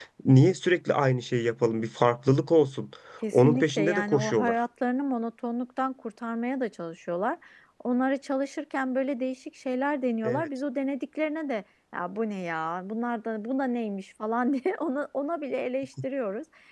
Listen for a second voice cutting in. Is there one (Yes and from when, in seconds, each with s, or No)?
Yes, from 3.3 s